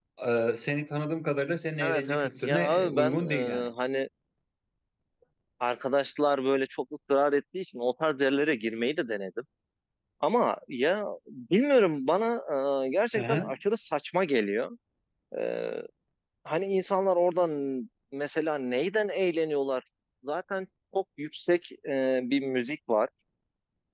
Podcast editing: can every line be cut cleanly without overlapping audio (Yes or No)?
No